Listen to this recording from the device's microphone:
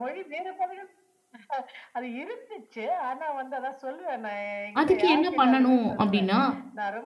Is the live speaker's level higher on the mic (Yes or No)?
Yes